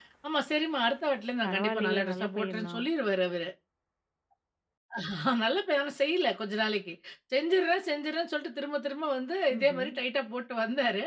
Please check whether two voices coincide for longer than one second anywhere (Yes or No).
Yes